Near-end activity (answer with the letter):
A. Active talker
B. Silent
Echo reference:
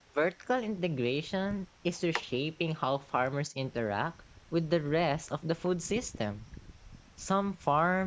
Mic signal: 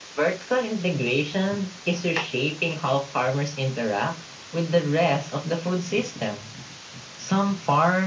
B